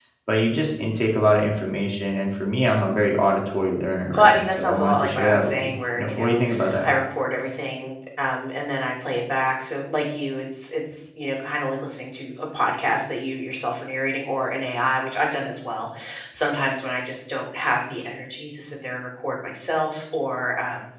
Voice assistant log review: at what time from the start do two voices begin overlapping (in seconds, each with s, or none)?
4.1 s